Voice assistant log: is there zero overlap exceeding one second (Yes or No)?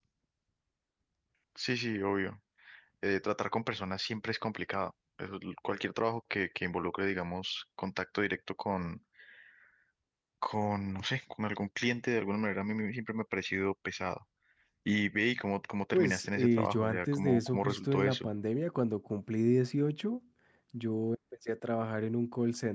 No